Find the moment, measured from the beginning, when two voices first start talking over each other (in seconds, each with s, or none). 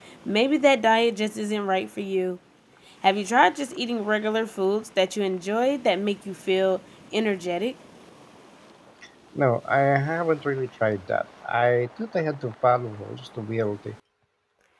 none